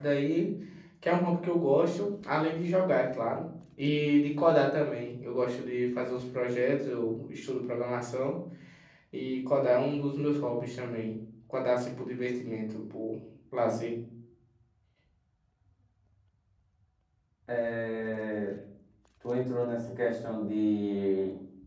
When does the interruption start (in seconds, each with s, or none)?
none